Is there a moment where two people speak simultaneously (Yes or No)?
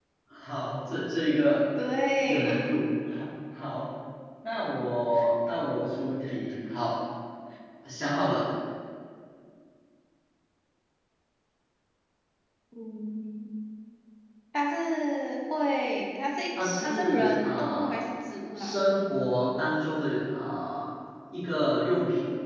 Yes